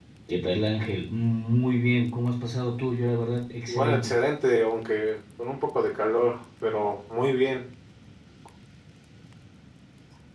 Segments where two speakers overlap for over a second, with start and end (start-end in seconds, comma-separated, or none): none